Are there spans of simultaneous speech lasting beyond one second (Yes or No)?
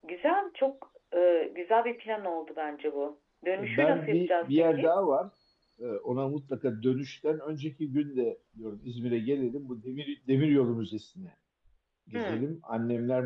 Yes